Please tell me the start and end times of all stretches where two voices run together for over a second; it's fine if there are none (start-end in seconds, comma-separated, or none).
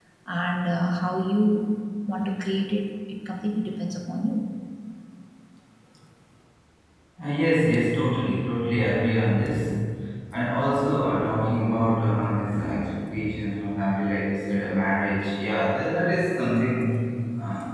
none